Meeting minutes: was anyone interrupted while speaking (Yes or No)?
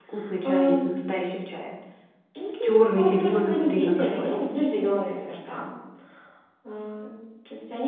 Yes